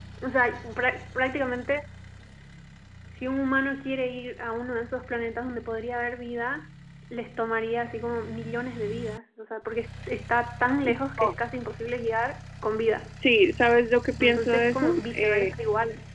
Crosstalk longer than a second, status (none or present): present